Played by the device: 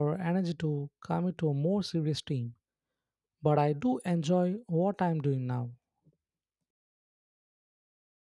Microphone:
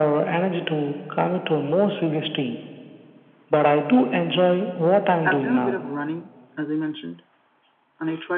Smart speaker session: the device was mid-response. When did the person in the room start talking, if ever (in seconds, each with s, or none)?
5.2 s